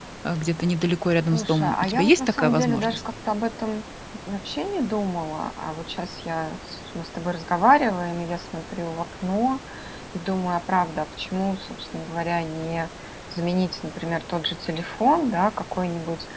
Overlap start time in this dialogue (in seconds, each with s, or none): 1.3 s